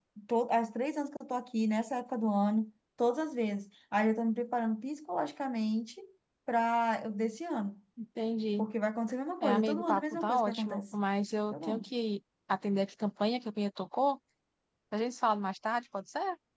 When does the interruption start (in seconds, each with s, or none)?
9.4 s